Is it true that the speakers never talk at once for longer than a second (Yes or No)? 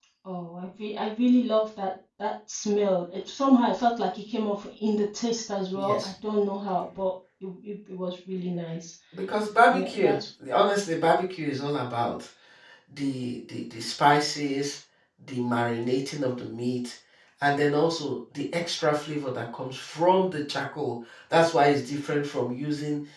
Yes